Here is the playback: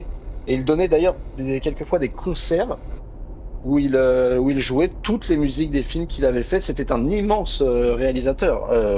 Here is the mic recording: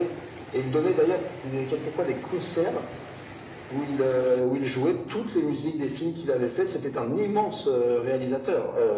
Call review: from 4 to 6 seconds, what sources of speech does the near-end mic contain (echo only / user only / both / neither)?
echo only